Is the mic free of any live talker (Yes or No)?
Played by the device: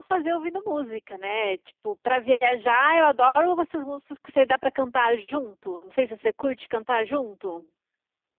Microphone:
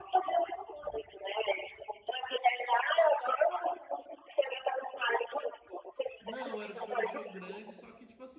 No